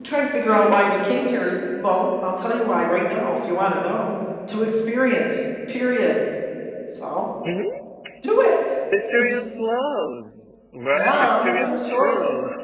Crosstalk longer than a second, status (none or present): present